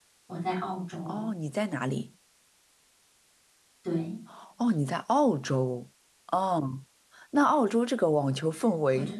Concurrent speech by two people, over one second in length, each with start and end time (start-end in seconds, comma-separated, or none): none